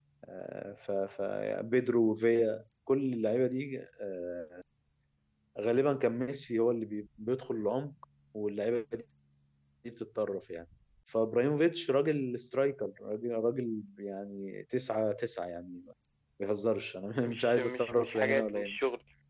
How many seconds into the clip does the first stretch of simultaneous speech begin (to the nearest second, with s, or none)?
17 s